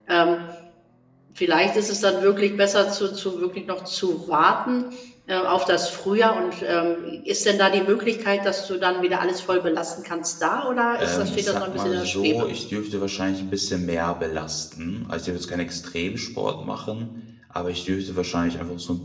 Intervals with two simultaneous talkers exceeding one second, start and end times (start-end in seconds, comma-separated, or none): 11.0-12.5